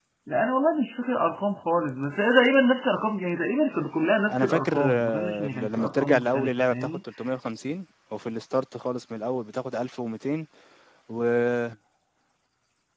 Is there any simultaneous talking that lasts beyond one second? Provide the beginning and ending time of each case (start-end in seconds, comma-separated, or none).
4.3-6.7